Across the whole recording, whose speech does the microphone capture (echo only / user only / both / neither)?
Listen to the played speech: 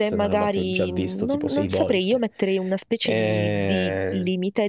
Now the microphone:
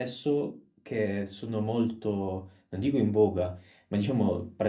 user only